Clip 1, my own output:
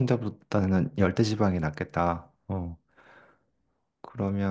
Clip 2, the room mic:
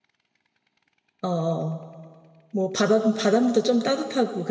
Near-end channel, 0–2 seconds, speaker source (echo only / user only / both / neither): user only